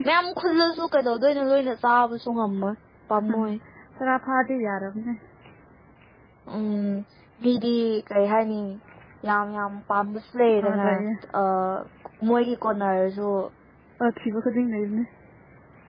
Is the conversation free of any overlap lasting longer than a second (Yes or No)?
Yes